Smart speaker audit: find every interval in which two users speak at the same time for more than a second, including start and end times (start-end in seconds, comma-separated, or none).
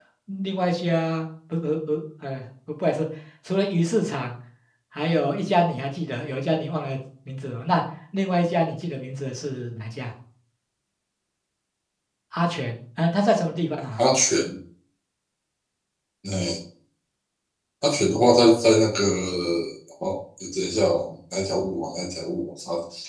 none